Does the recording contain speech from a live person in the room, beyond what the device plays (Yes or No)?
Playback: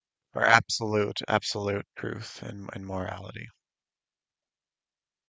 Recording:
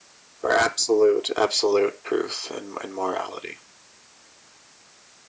No